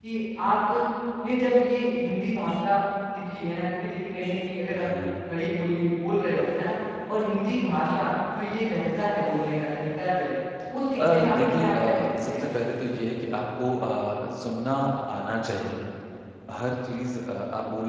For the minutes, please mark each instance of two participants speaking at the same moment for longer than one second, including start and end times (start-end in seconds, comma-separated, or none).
11.1-12.5